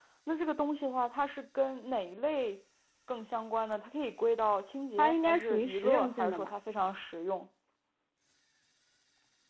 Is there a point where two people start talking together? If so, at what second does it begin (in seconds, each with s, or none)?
5.0 s